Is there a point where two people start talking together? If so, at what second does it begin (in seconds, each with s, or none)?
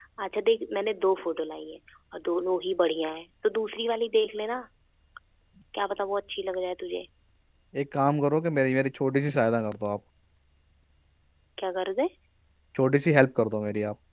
none